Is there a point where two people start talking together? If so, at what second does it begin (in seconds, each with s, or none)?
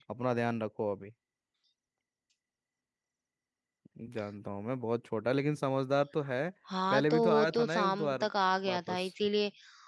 6.9 s